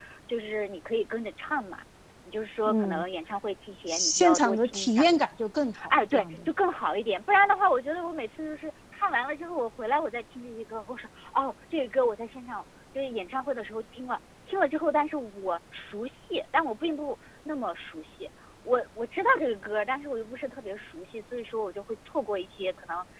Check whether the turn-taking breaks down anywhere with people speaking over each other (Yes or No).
Yes